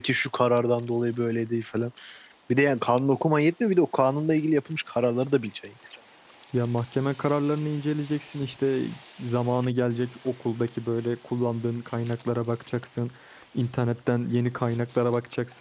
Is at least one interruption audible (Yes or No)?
No